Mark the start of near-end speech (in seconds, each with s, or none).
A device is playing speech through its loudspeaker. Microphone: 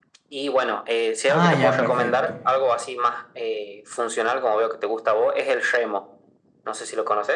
1.2 s